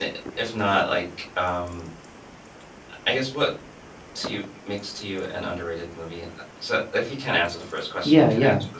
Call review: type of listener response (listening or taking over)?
taking over